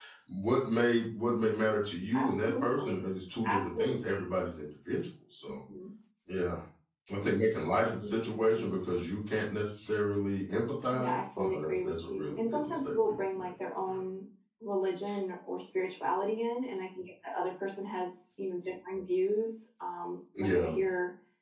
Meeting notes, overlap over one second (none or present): present